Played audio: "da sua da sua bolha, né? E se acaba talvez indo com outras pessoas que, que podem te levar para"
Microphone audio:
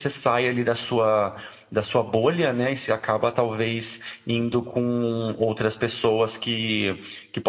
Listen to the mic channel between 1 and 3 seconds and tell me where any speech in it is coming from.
echo only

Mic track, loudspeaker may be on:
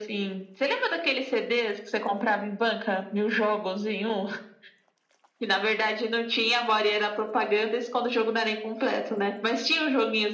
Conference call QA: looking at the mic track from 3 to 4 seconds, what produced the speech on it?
echo only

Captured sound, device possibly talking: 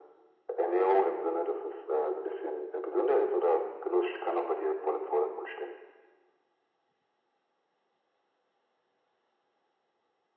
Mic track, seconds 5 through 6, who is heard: echo only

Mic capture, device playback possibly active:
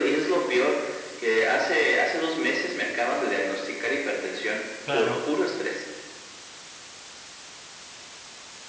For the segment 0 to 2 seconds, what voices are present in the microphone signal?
echo only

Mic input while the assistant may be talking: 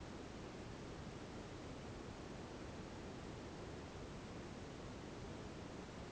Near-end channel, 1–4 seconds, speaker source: neither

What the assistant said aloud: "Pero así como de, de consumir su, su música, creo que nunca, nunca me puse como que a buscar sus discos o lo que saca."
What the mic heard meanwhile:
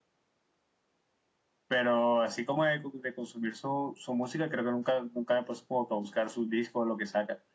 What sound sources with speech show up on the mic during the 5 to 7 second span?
echo only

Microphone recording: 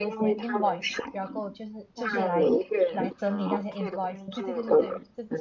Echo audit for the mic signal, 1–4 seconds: both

